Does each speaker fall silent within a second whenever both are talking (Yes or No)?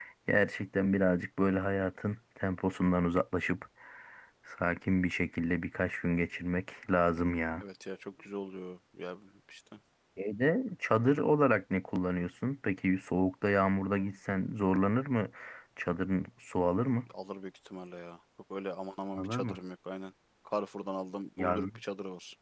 Yes